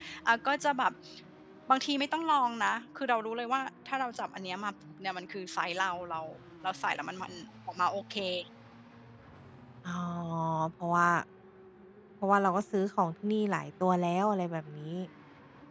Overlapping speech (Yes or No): No